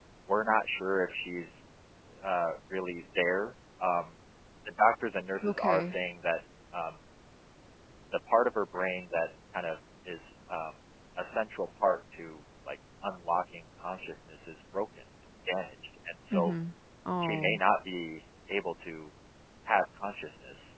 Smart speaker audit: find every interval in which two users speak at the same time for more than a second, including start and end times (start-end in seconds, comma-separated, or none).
none